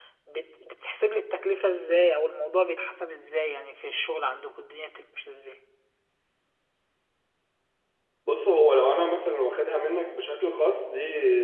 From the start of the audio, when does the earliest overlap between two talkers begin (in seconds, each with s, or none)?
none